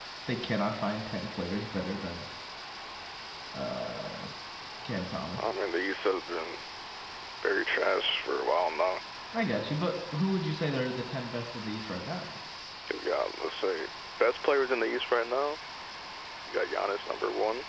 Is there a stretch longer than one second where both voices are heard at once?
No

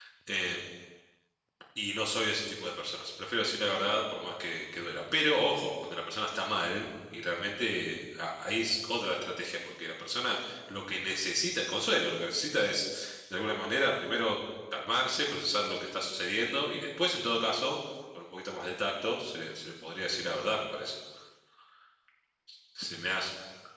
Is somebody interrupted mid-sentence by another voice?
No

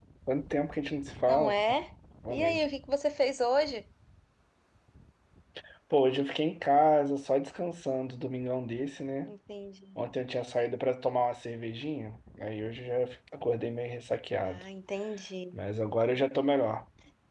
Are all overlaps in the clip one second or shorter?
Yes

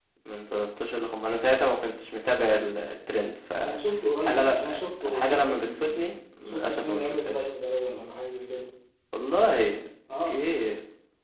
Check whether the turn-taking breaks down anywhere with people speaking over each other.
Yes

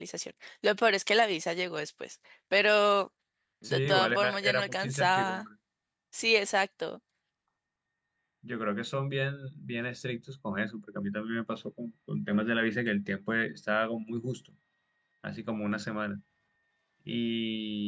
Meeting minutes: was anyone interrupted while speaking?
Yes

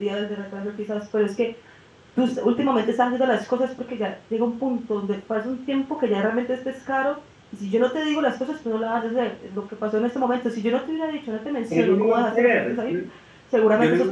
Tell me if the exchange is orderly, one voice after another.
No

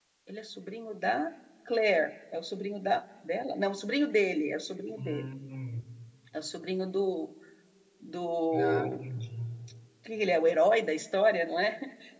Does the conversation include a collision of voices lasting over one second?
No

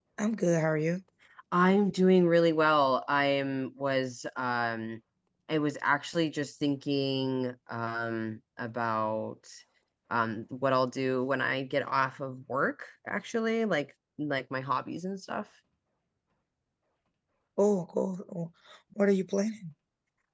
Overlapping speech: No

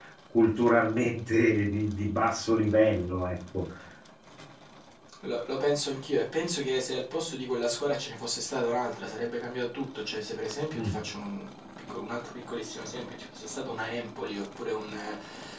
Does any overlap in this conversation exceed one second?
No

